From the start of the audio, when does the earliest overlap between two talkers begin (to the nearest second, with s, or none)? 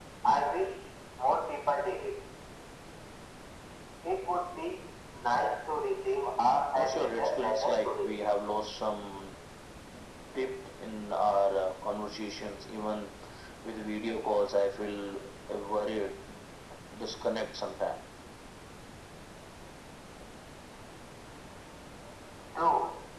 7 s